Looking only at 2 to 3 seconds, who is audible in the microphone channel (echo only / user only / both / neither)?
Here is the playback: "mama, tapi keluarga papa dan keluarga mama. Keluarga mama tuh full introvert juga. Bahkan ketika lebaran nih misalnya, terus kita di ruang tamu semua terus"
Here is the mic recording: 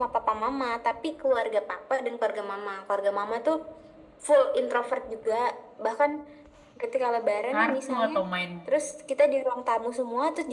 echo only